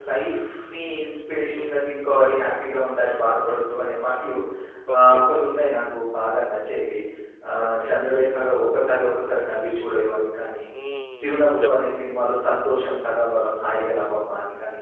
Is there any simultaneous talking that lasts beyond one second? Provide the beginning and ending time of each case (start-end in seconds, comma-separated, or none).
none